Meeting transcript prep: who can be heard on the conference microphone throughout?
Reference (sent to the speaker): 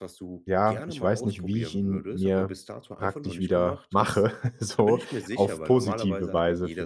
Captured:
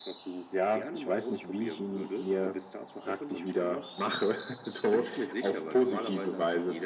echo only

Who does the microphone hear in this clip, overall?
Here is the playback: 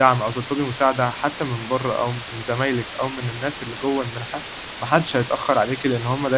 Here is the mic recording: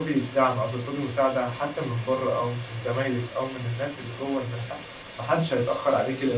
echo only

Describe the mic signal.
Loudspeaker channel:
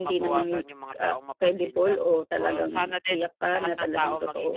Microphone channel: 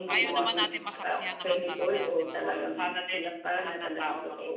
both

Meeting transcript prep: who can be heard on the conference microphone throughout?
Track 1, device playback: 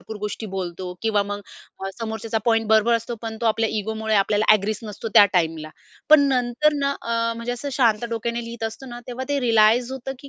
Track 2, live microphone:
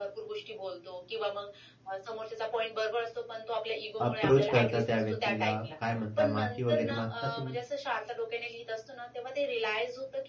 both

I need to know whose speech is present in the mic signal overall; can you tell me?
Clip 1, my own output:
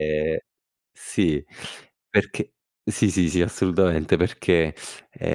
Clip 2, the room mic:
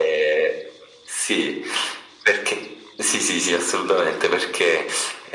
echo only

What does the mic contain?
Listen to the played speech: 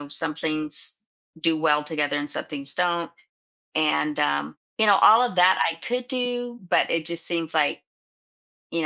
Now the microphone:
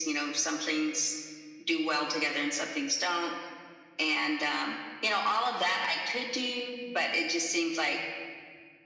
echo only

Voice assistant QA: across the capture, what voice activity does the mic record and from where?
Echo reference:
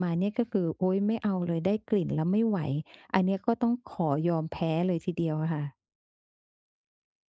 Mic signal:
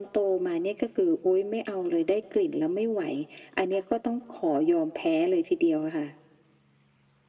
echo only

